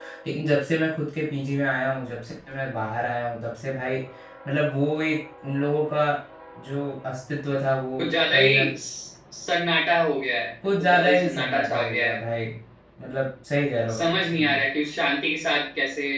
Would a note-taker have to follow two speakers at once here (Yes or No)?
Yes